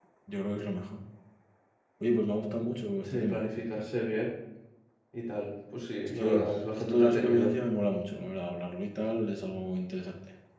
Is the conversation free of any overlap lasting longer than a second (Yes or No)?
No